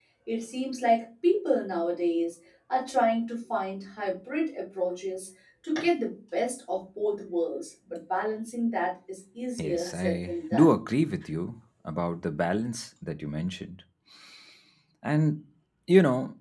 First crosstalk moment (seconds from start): 9.6 s

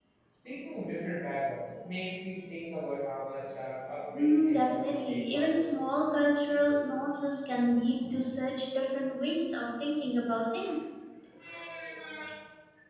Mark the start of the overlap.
4.1 s

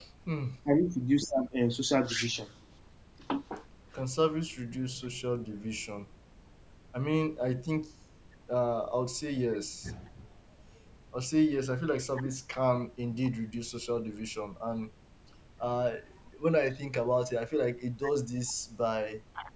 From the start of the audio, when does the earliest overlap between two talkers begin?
none

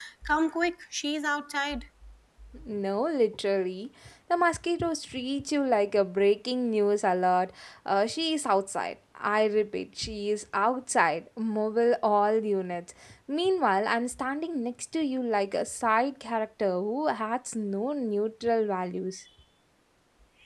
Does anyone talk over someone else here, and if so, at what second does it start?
none

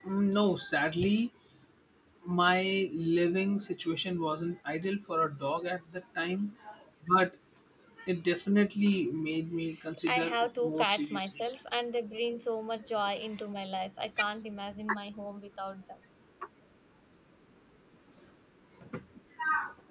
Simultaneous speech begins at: 10.1 s

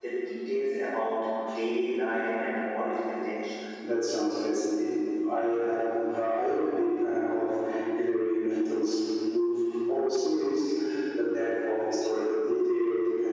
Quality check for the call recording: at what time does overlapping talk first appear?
none

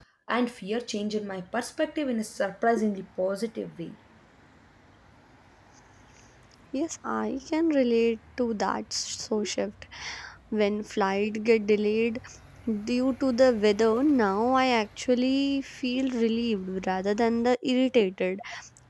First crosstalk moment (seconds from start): none

